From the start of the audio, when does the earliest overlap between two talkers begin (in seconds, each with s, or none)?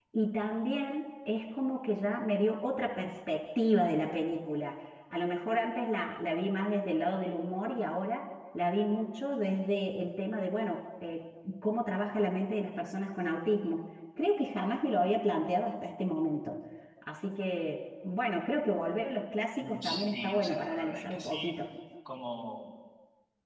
19.6 s